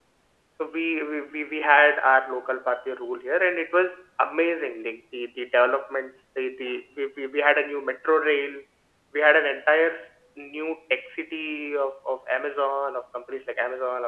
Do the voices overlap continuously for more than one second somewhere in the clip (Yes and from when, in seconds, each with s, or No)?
No